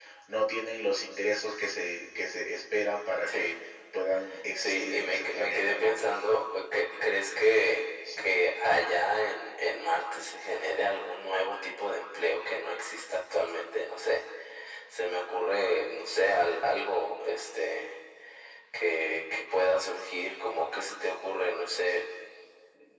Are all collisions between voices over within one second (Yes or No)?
No